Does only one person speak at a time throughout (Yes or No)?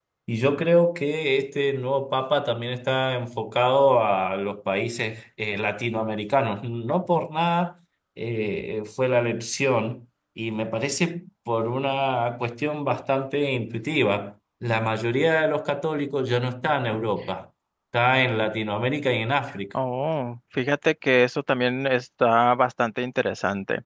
Yes